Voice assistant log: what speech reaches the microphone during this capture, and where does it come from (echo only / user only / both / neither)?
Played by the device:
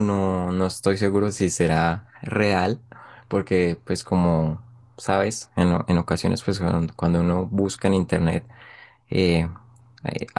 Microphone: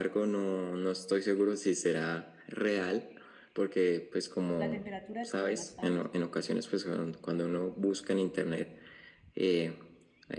both